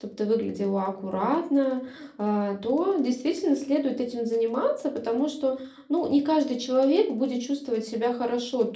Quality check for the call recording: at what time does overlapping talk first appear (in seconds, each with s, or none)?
none